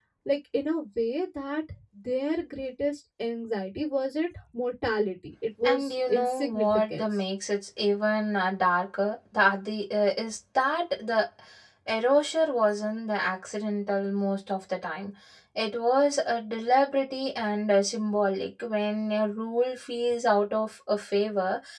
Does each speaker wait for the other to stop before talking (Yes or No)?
No